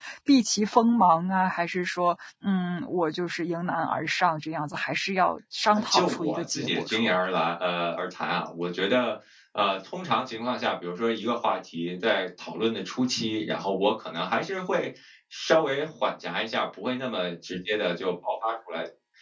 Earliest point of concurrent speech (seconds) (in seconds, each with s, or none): 5.7 s